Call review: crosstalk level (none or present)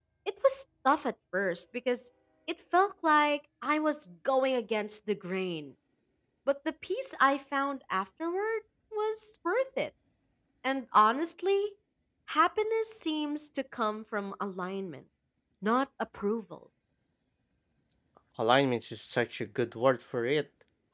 none